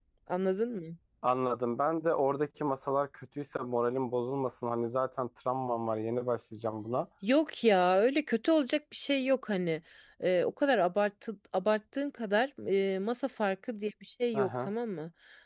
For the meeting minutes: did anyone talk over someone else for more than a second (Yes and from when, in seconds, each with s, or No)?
No